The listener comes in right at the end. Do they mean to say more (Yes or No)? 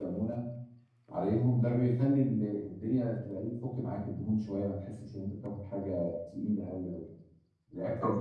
No